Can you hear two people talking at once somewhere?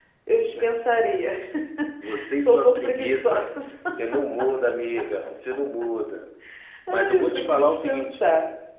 Yes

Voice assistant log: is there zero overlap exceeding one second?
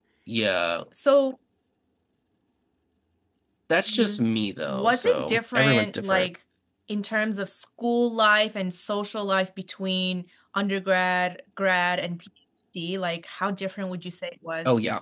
No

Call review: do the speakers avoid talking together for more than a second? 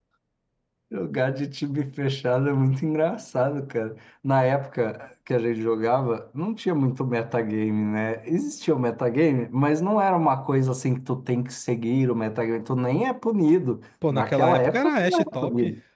No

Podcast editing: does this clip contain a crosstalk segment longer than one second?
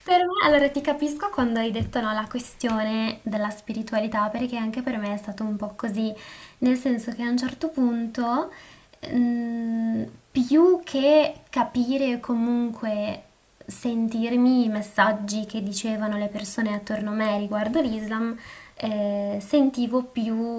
No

